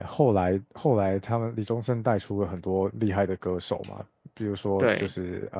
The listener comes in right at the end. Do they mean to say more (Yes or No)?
No